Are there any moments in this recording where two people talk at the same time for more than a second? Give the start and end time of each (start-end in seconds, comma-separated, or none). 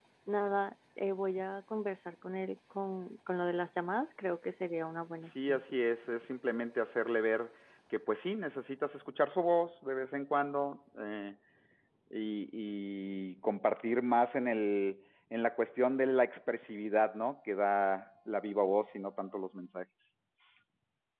none